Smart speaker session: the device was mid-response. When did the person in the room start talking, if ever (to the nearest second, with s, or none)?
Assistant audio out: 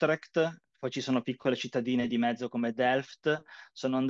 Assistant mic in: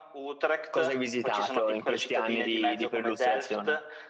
1 s